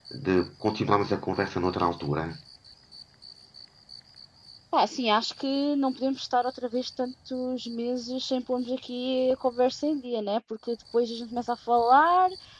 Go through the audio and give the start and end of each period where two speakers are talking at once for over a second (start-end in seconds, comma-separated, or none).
none